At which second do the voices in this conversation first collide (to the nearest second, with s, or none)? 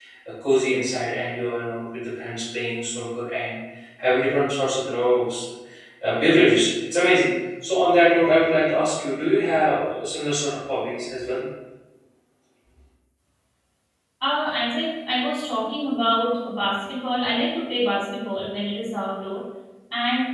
none